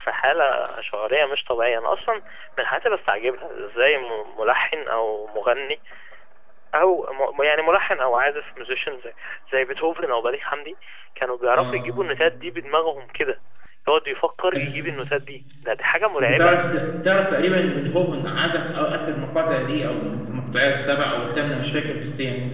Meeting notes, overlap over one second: none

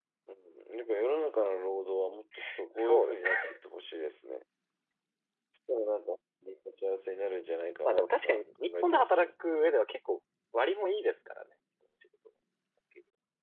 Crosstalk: present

